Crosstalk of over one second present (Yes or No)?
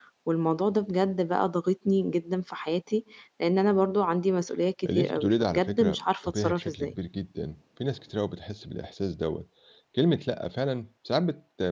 Yes